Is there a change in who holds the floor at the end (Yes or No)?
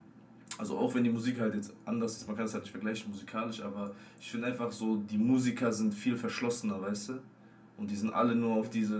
No